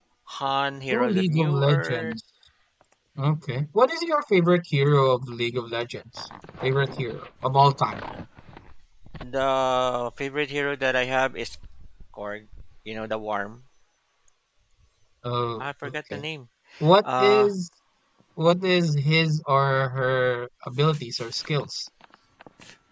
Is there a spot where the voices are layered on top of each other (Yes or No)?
Yes